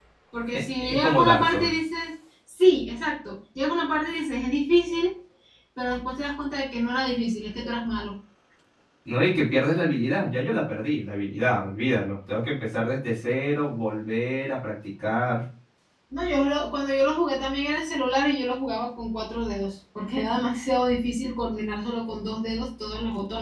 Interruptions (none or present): present